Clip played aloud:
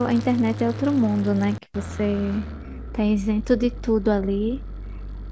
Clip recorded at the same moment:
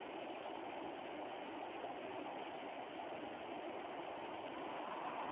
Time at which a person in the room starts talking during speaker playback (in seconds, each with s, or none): none